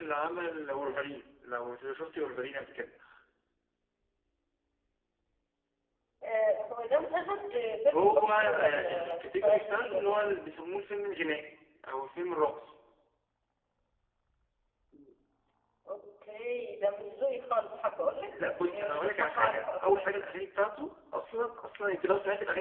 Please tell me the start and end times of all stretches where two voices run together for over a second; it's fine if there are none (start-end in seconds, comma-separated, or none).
7.9-10.3, 18.3-20.2